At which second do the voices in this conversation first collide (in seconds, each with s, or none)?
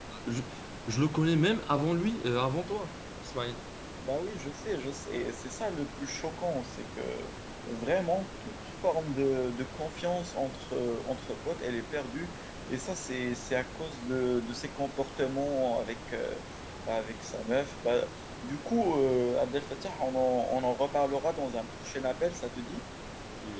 none